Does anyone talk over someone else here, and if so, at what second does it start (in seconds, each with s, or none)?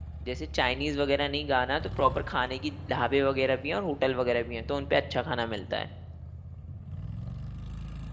none